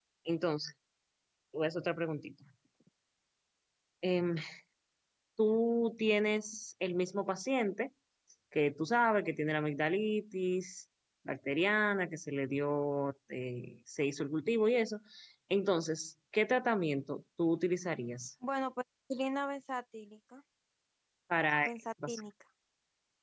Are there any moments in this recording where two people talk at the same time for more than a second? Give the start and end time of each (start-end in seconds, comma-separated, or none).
none